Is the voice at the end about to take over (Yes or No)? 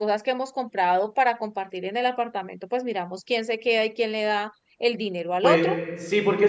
Yes